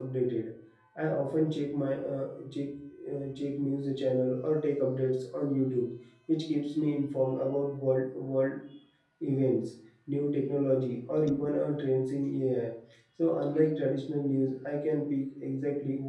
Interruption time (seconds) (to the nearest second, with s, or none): none